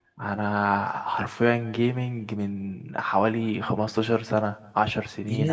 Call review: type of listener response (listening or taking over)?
taking over